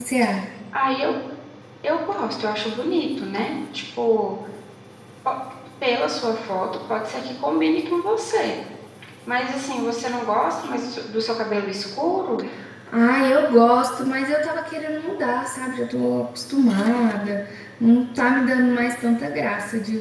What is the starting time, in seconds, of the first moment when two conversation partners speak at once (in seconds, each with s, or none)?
none